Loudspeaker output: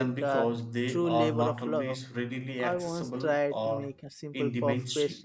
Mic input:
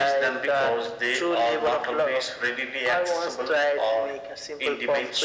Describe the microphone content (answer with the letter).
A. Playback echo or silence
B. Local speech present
A